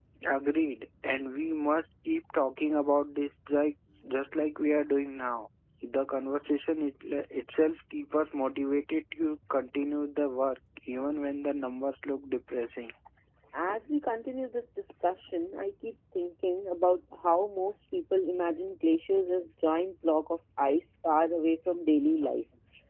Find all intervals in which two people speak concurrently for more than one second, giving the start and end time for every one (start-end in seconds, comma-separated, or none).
none